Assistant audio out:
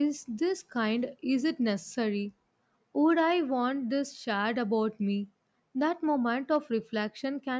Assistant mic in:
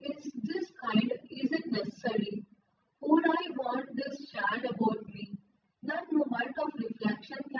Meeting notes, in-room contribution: none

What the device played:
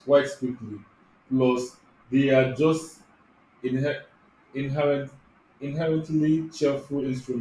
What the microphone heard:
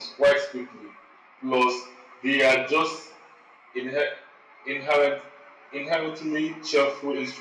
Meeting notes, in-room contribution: none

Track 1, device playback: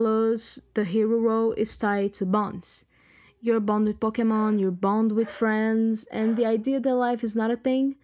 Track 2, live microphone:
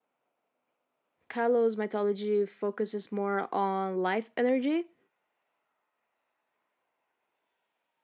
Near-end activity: present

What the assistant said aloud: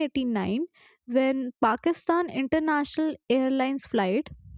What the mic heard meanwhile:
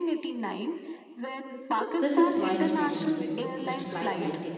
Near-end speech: present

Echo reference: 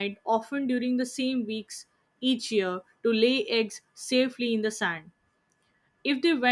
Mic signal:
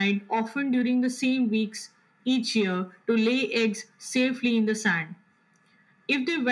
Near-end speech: none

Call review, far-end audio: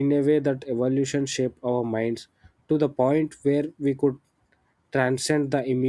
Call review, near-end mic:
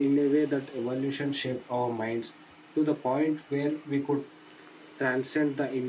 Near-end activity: none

